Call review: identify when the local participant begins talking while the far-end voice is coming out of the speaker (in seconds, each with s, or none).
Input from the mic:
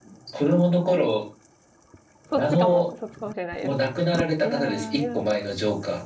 2.3 s